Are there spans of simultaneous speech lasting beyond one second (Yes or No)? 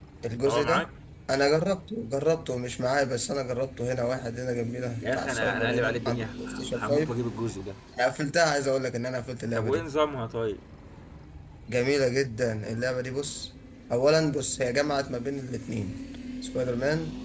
Yes